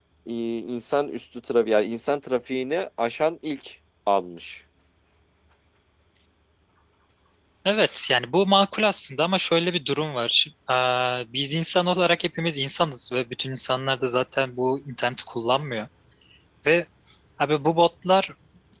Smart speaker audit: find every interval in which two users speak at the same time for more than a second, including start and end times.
none

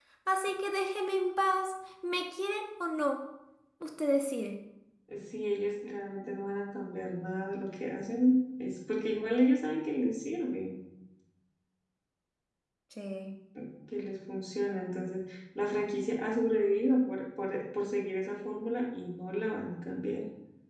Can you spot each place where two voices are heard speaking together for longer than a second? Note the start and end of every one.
none

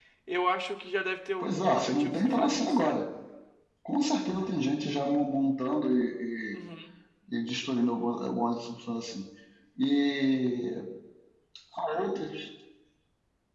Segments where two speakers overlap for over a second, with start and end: 1.4-3.0

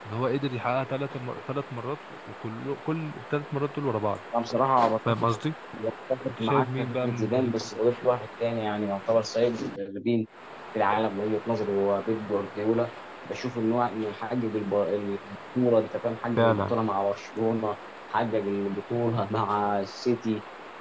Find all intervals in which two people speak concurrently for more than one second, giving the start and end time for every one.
6.3-7.7

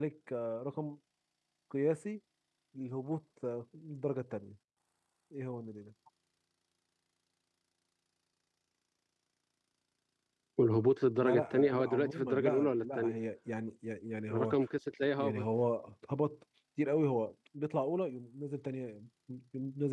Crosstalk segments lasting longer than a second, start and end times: 11.2-13.2

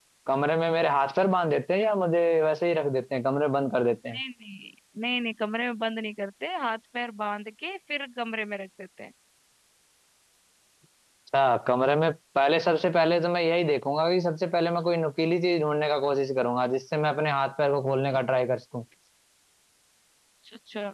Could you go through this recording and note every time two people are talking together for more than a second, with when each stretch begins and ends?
none

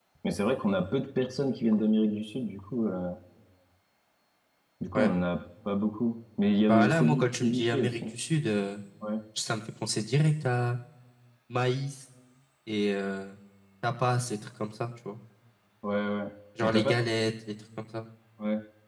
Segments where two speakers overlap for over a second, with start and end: 6.7-8.0

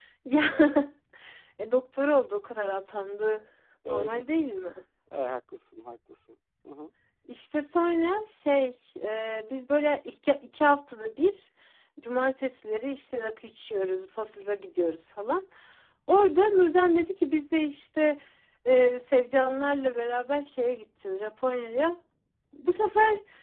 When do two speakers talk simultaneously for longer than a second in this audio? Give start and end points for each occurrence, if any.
none

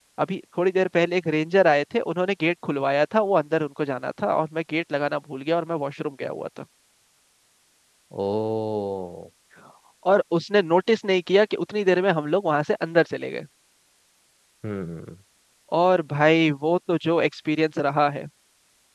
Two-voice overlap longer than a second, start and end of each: none

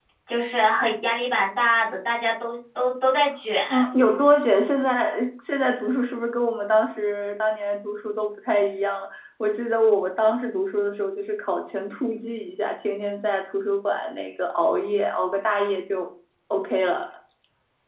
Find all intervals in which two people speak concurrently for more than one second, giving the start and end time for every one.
none

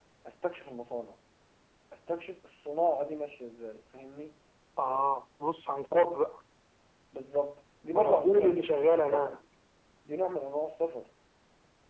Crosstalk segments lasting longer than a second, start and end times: 7.9-9.4

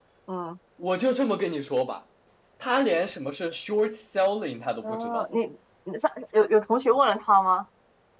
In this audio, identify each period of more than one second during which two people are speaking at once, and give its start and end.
none

